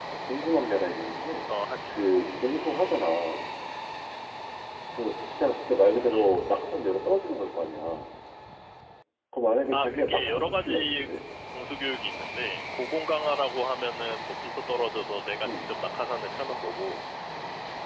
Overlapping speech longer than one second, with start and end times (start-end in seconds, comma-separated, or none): 9.7-11.1